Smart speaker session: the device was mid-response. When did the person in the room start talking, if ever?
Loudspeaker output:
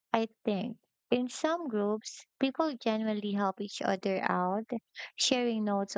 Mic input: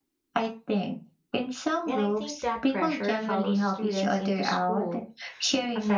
1.8 s

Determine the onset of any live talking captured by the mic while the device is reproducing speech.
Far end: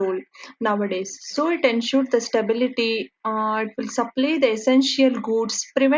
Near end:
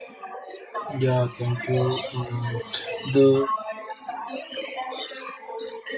0.9 s

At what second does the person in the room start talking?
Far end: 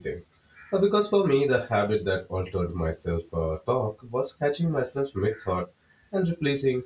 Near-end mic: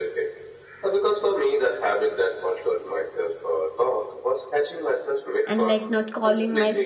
5.5 s

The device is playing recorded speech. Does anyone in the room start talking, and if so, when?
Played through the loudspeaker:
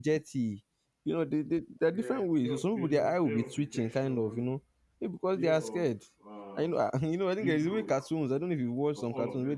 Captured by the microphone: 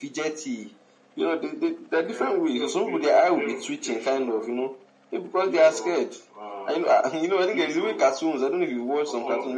none

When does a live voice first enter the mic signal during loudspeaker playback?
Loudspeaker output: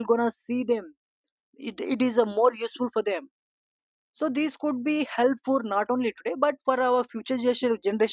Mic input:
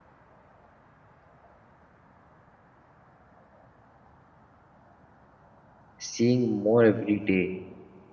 6.0 s

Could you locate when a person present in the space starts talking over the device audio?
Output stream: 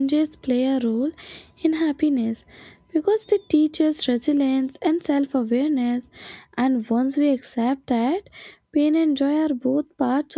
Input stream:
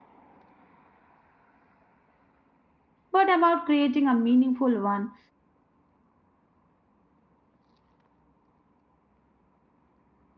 3.1 s

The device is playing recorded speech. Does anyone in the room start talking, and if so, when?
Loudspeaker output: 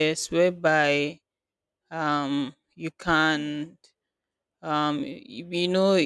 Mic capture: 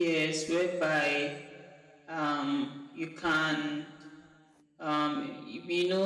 none

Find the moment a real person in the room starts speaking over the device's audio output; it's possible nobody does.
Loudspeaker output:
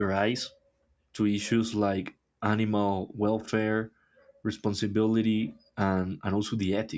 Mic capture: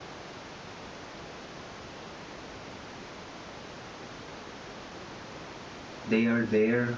6.0 s

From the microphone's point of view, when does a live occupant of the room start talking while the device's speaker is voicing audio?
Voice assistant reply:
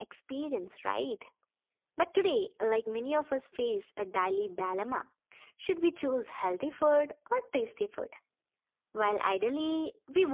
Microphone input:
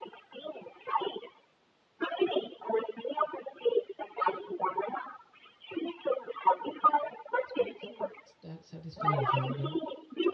7.5 s

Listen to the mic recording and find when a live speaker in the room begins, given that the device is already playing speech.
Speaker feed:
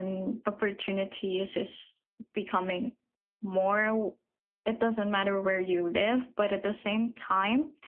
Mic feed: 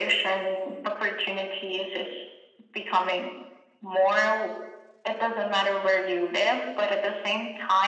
none

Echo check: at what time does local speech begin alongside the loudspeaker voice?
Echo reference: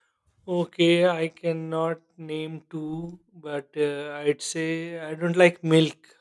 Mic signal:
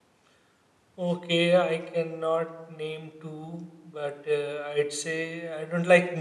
none

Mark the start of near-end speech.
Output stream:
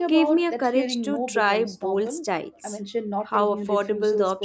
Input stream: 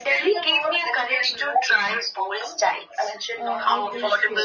3.3 s

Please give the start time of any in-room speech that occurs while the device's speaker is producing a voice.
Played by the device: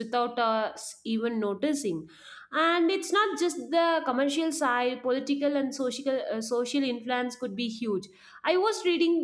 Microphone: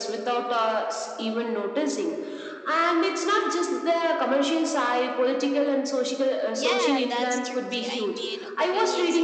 6.5 s

